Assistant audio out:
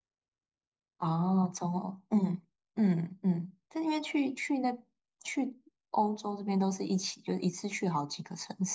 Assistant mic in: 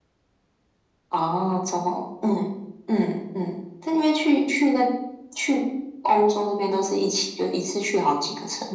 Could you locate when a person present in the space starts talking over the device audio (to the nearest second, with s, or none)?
none